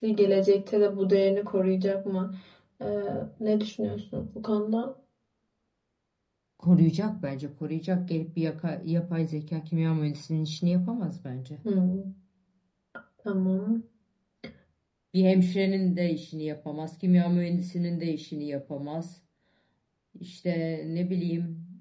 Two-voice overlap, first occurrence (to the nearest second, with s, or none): none